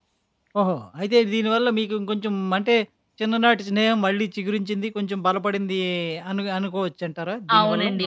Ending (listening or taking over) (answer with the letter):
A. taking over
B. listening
A